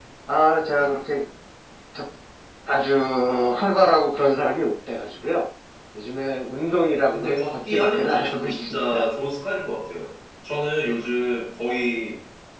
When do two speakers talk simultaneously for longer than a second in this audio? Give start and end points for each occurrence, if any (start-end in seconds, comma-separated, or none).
7.1-9.0